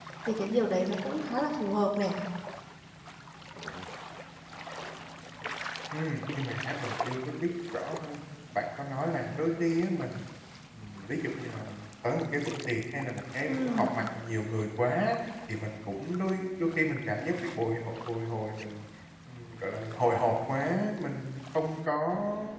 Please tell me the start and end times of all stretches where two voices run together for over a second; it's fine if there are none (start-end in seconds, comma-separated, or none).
none